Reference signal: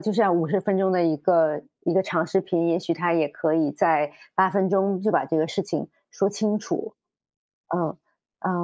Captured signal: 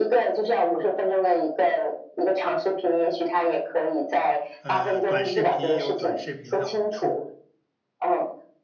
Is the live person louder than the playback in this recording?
No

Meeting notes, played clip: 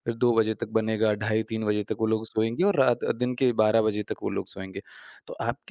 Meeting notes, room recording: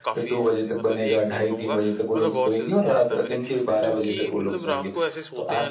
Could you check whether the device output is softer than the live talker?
No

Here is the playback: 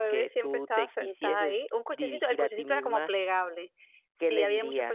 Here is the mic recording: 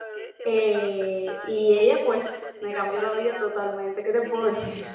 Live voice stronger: Yes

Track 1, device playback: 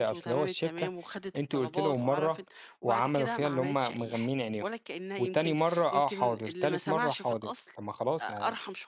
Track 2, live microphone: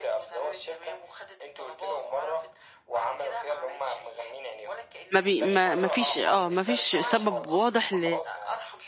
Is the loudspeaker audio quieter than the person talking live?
Yes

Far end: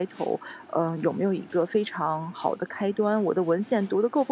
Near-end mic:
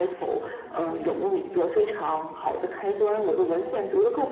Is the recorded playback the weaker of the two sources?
No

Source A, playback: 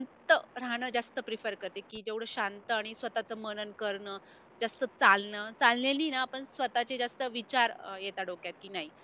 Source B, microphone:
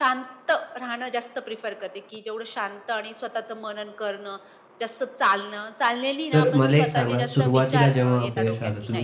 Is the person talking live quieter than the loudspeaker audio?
No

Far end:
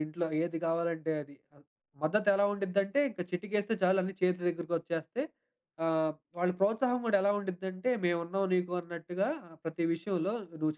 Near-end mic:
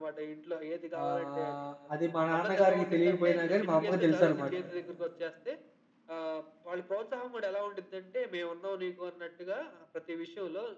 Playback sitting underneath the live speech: Yes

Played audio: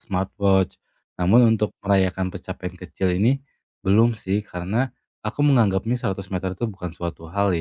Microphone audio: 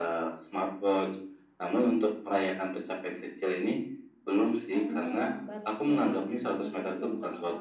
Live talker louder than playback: No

